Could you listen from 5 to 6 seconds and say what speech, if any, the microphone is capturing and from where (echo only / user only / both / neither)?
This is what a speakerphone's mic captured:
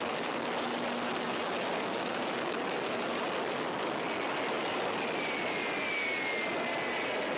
neither